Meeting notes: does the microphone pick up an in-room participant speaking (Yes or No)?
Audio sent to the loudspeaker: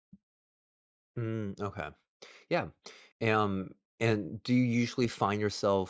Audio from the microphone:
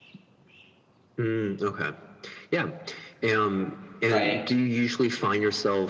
Yes